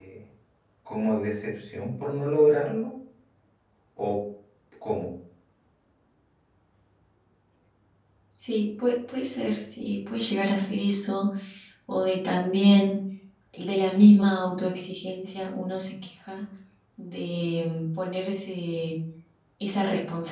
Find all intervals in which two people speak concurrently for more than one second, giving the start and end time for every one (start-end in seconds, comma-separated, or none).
none